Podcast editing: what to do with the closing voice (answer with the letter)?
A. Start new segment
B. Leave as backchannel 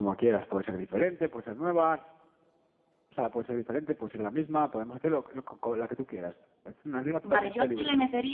A